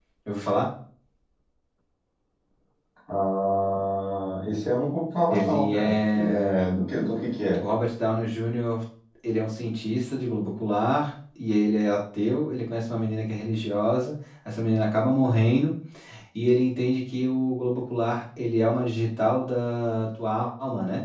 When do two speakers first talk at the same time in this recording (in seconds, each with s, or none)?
5.3 s